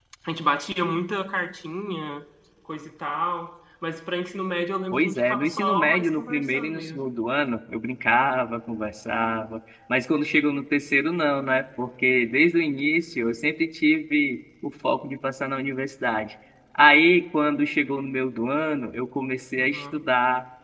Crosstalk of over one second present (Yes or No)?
Yes